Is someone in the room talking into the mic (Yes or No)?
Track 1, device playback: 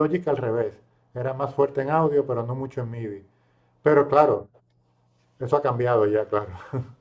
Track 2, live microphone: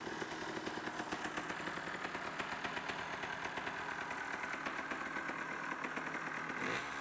No